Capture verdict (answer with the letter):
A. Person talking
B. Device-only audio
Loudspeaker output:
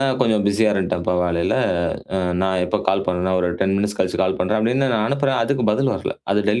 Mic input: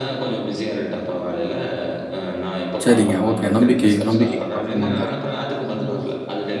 A